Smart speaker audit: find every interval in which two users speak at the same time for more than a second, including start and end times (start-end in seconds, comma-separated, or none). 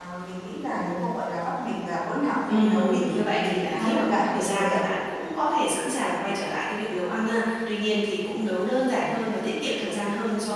2.5-4.8